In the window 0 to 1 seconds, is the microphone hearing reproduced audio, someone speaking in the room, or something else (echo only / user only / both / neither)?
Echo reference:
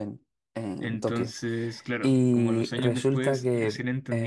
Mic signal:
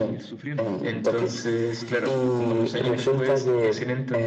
both